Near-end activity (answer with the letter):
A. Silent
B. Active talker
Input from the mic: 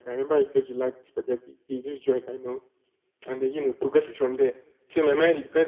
A